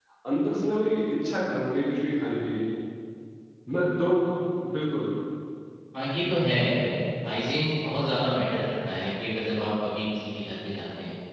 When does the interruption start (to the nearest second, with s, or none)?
none